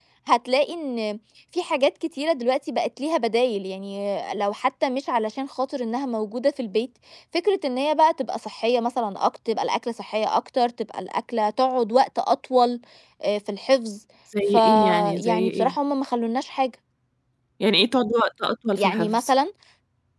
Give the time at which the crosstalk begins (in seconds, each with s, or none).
14.5 s